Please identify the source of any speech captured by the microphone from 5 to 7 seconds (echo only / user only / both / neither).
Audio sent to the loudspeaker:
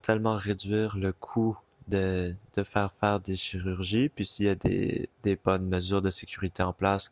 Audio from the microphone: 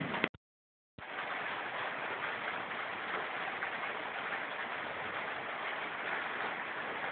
neither